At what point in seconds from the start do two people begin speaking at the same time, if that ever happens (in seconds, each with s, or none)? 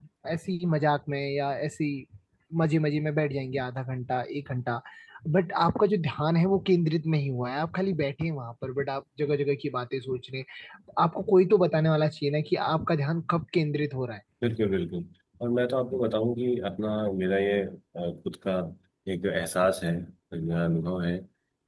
none